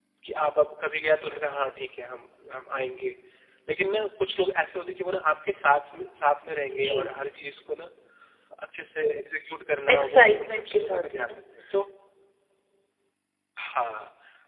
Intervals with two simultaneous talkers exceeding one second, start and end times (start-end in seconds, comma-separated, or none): 9.9-11.4